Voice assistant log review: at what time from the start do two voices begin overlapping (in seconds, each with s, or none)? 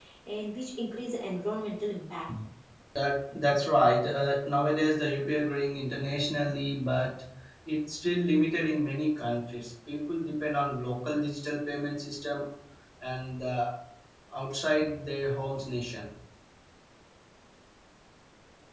none